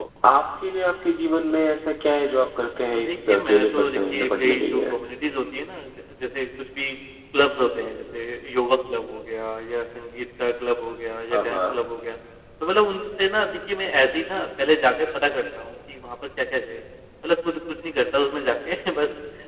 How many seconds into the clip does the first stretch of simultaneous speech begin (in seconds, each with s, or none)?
2.9 s